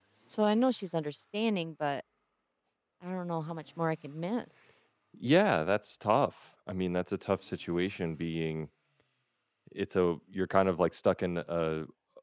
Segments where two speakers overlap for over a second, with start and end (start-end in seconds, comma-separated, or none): none